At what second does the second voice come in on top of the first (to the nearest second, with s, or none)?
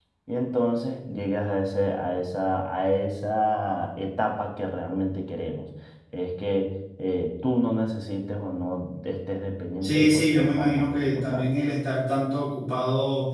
10 s